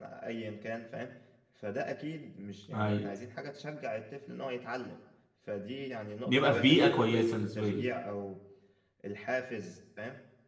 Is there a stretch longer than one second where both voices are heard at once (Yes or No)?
Yes